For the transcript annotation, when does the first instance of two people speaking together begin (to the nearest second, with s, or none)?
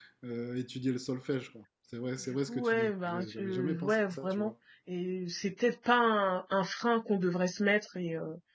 2 s